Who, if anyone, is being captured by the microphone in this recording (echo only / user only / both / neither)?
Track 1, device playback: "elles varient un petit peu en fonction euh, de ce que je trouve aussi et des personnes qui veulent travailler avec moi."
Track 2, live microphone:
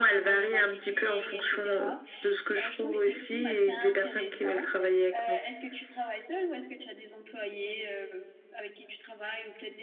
both